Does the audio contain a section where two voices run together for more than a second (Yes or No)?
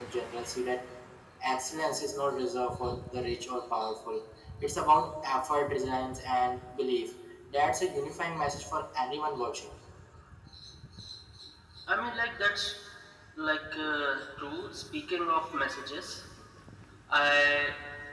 No